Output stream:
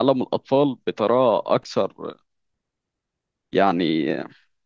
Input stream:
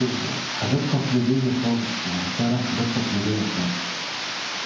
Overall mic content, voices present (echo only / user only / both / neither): user only